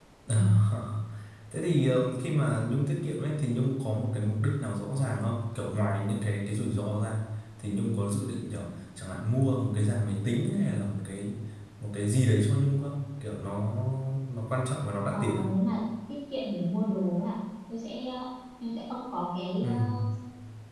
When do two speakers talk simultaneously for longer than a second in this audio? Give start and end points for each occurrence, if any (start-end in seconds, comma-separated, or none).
none